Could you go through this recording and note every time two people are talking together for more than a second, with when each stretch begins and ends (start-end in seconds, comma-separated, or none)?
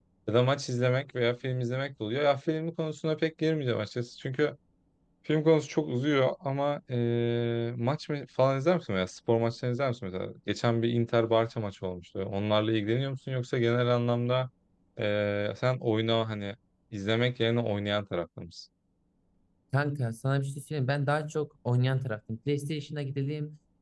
none